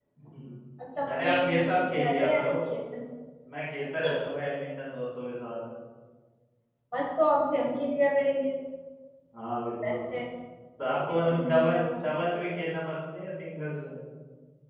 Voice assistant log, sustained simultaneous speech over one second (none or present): present